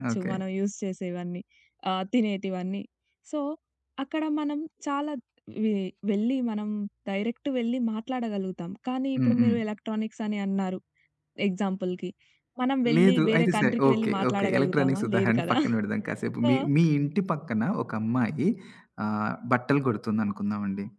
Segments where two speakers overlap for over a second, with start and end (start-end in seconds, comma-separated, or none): 13.0-15.6